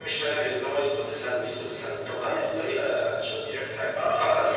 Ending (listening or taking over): taking over